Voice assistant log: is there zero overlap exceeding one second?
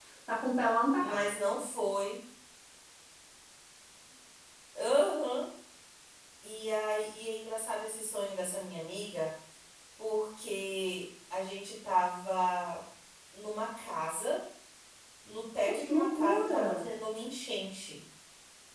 No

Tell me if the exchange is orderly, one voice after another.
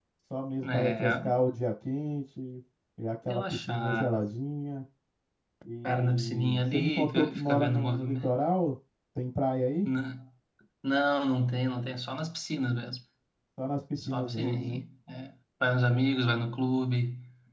No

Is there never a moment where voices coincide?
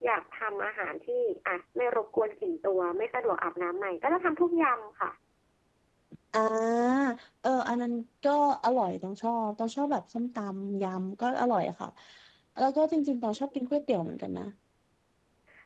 Yes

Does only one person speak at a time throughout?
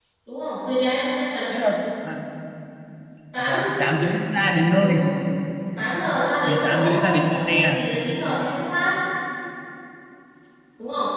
No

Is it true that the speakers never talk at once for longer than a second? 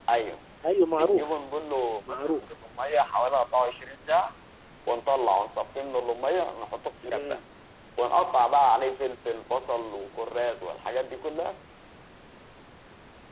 Yes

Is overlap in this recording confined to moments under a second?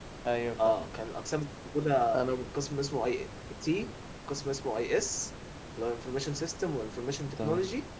Yes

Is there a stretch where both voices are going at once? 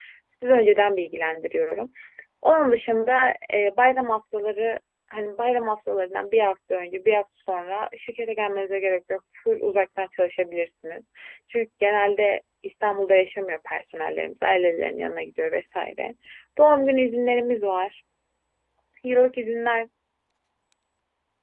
No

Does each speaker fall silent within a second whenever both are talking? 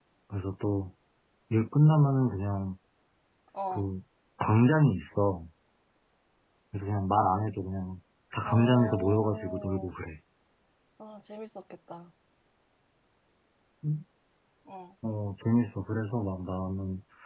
No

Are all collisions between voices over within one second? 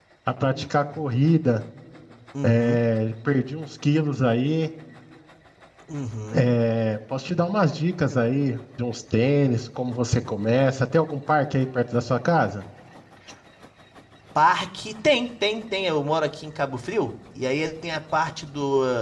Yes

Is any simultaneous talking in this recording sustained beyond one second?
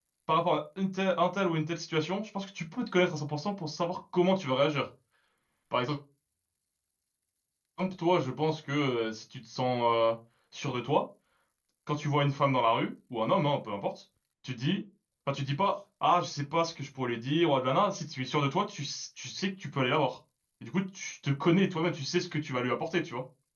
No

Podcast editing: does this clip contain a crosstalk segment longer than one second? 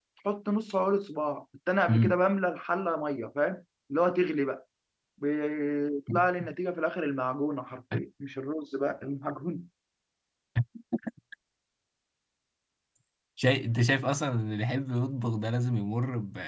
No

